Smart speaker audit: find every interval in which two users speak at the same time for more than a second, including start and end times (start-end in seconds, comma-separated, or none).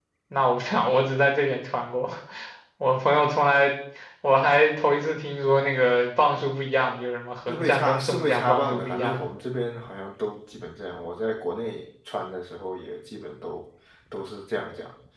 7.5-9.2